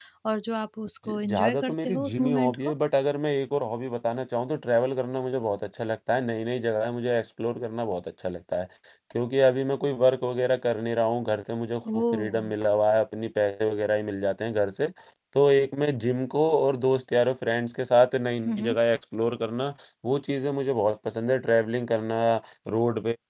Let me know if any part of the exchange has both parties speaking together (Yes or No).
Yes